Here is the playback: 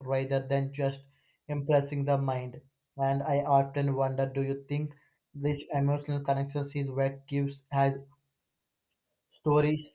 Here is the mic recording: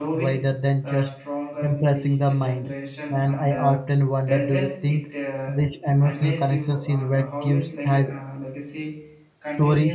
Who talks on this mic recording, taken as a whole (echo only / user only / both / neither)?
both